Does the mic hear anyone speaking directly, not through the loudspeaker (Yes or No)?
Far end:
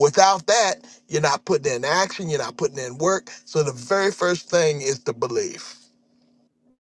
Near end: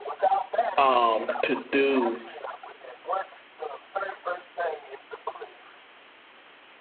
Yes